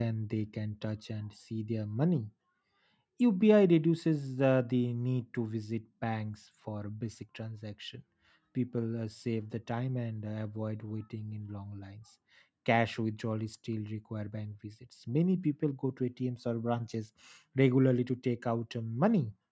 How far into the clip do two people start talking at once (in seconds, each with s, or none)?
none